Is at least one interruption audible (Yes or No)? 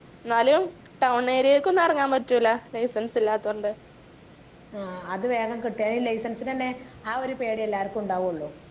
No